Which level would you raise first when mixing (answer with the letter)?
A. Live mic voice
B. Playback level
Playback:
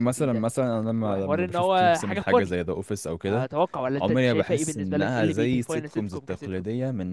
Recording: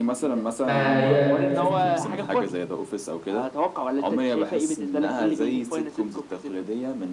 B